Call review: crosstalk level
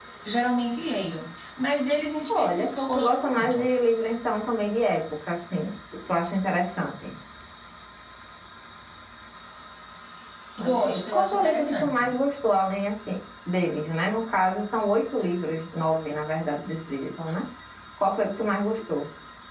present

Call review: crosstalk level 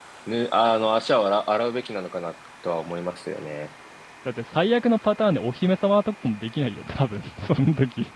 none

